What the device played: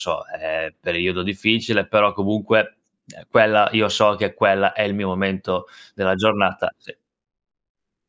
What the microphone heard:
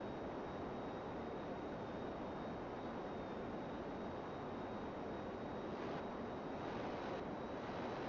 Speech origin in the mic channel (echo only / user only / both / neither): neither